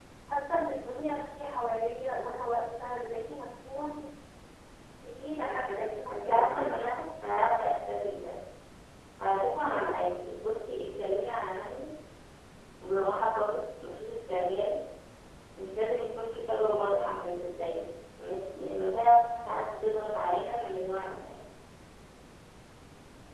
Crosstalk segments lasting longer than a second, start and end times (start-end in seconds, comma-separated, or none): 5.4-6.7